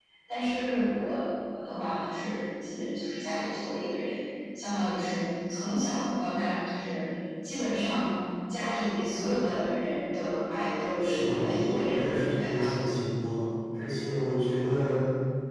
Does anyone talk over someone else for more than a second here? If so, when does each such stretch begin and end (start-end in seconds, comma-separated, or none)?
11.0-12.8